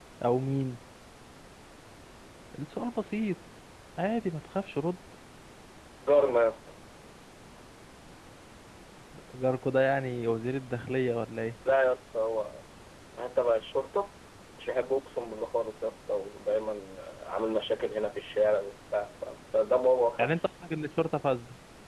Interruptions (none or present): none